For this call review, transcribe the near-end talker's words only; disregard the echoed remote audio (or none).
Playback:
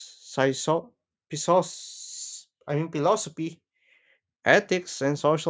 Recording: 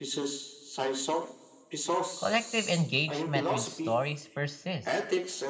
Collective engagement with stories persists,